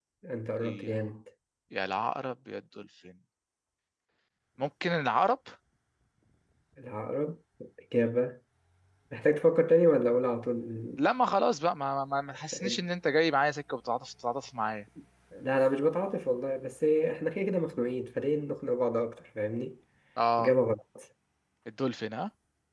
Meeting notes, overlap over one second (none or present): none